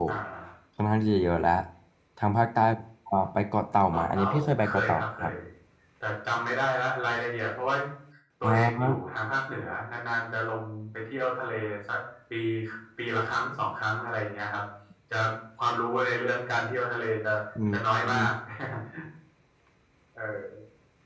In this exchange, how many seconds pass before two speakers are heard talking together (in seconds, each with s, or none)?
3.9 s